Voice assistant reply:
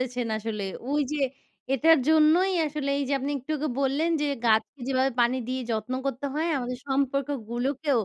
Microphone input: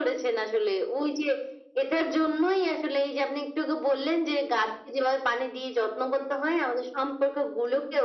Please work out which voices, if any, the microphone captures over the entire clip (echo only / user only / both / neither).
echo only